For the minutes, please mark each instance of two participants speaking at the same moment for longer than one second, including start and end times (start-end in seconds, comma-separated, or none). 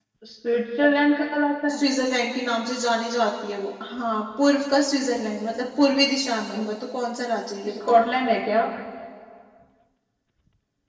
none